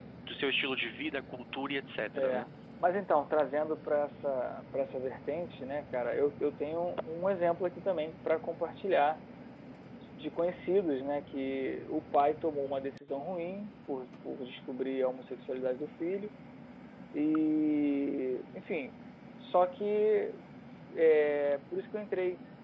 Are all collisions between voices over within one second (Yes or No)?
Yes